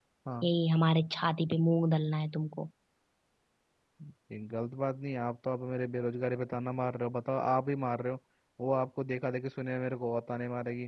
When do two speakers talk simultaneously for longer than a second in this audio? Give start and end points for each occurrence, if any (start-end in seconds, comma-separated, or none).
none